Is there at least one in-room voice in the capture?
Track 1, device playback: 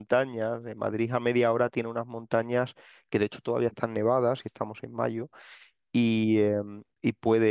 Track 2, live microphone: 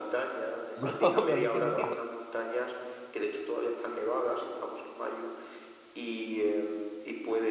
Yes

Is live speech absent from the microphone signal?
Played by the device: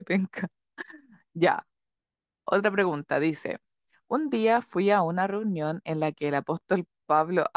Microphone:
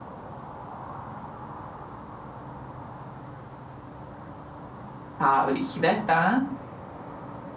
No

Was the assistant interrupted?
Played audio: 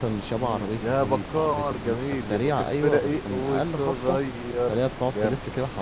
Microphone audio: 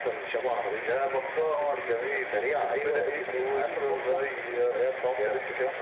No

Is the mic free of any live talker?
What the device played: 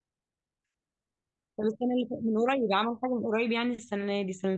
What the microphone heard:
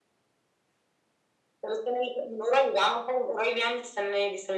Yes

